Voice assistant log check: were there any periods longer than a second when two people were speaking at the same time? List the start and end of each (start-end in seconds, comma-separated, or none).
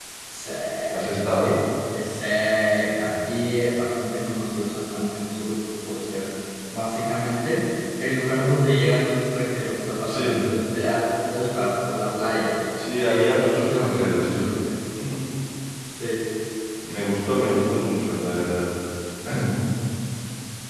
13.0-14.4